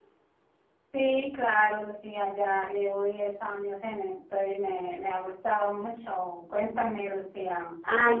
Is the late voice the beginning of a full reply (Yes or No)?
Yes